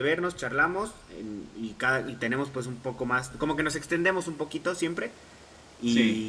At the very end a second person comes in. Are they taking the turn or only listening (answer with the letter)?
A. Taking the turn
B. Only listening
B